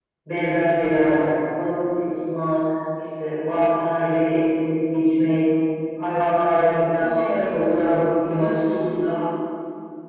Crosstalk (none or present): present